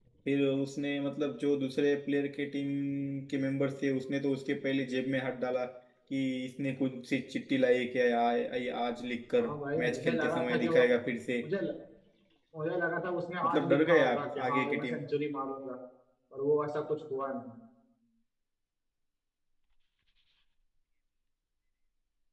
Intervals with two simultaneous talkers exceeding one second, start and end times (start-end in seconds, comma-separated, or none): 9.4-10.8, 13.4-15.0